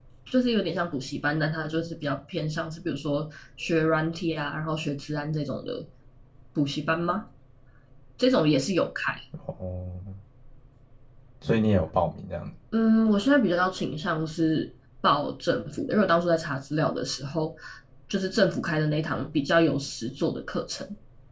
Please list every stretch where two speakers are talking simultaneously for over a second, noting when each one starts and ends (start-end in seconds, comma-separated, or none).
none